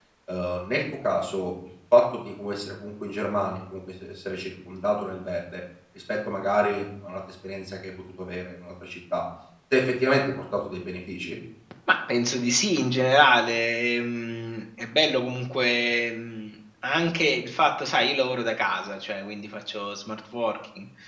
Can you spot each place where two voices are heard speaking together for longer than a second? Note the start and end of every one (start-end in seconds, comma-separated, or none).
none